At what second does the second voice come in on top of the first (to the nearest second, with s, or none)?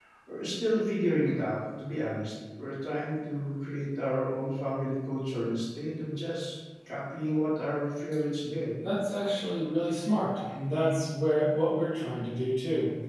none